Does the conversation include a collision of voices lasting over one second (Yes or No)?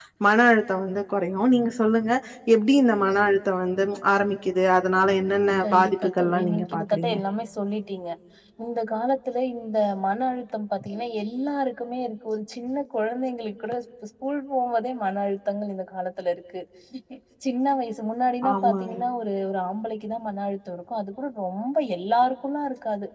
Yes